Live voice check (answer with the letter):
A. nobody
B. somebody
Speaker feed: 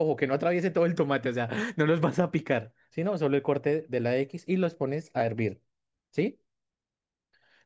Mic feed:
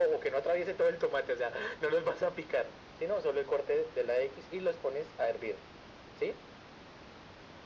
A